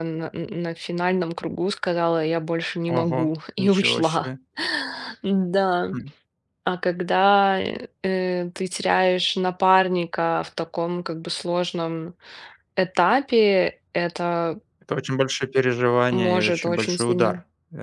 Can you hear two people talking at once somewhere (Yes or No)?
Yes